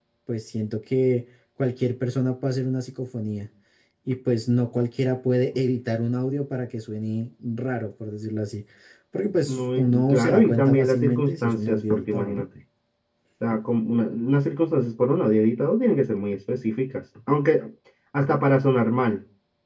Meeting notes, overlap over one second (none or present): present